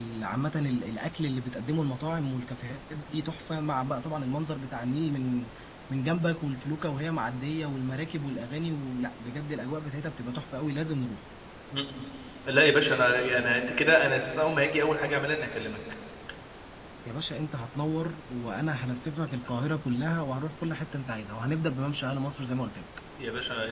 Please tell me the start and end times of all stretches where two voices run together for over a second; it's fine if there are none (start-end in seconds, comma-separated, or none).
none